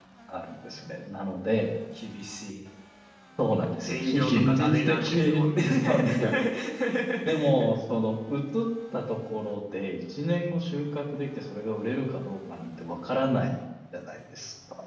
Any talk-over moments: Yes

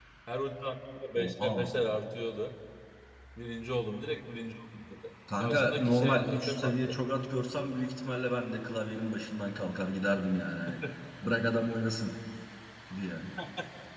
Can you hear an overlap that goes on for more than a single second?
Yes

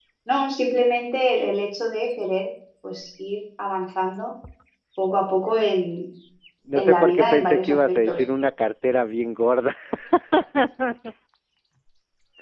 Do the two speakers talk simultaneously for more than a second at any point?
Yes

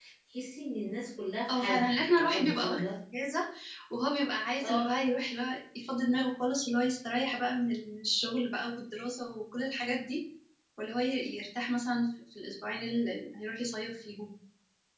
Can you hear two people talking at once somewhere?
Yes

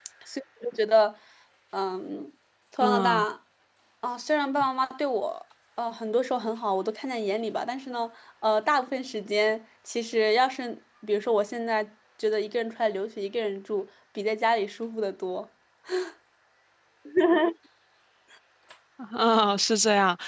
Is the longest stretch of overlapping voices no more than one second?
Yes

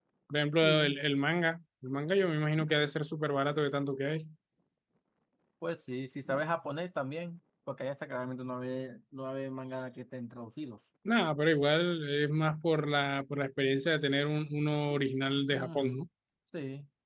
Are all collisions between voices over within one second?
Yes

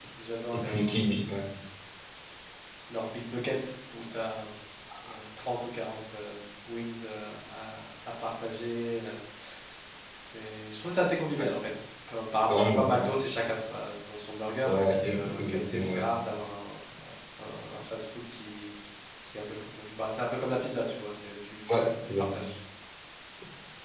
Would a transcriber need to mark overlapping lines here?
Yes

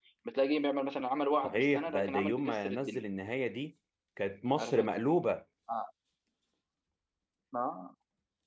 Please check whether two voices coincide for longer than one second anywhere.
Yes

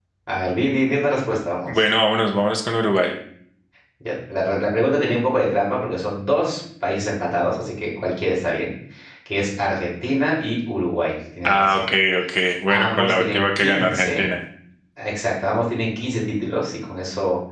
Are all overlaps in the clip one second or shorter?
No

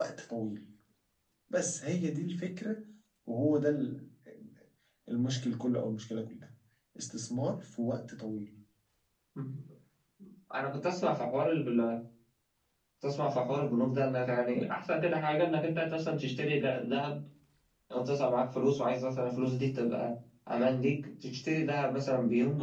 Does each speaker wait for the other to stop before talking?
Yes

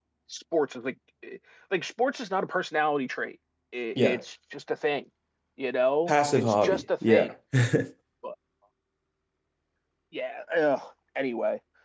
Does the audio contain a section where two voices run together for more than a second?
Yes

